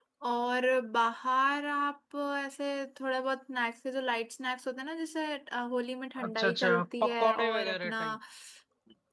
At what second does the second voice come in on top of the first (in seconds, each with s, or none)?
6.2 s